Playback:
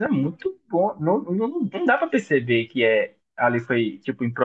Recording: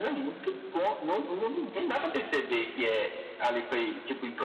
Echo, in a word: present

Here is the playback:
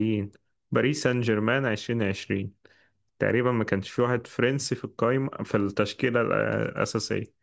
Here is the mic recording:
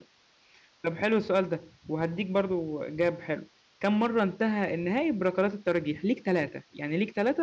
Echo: none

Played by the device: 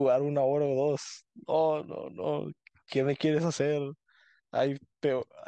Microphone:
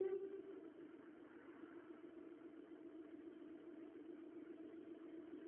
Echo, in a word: none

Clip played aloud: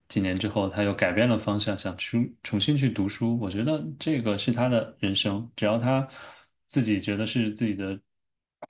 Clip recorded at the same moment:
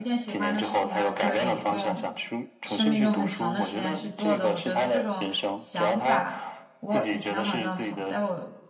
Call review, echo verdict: present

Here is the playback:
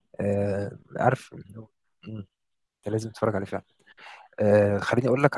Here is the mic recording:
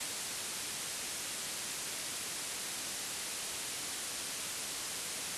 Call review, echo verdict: none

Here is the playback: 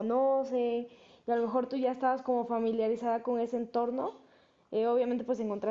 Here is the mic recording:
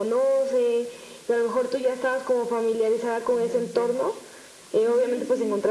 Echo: present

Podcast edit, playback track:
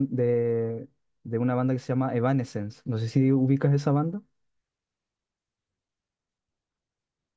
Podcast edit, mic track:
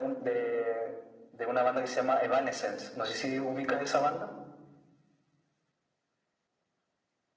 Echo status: present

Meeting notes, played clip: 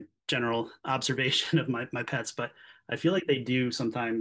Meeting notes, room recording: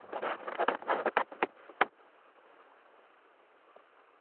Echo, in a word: none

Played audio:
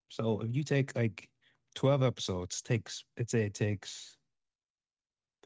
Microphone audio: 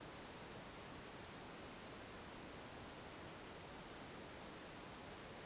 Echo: none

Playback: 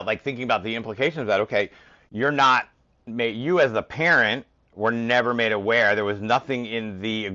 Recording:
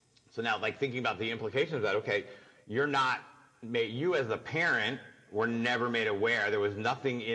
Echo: present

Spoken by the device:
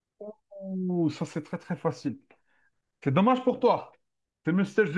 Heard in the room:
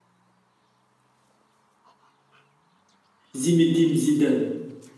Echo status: none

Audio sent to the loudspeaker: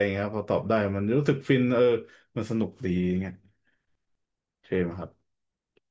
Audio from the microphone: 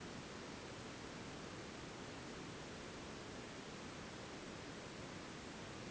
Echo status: none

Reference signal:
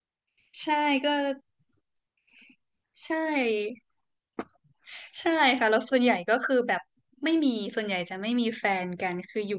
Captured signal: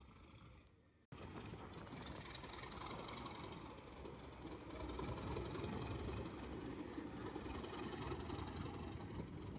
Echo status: none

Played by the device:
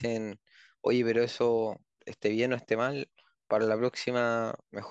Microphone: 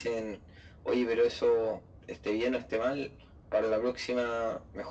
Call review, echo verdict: present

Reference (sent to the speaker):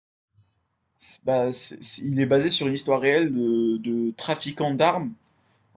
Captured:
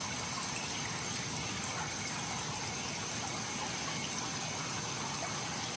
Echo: none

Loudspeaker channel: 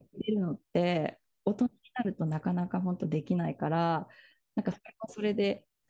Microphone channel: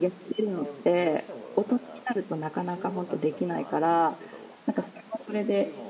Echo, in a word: present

